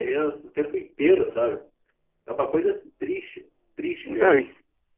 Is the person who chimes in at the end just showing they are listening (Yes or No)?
No